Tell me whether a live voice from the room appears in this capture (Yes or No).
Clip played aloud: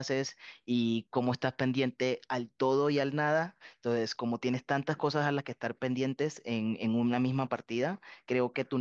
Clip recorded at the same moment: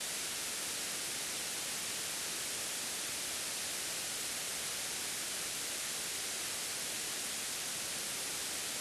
No